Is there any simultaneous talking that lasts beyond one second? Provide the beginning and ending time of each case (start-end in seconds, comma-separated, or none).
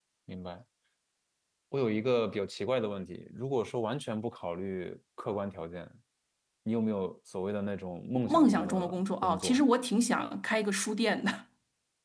8.2-9.6